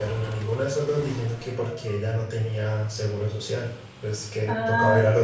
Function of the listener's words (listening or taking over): taking over